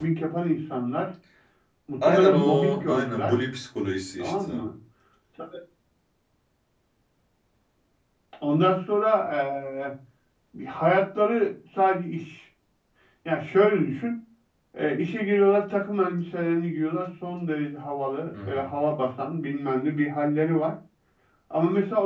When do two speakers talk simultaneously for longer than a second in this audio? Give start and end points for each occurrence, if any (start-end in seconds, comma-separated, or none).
2.0-3.3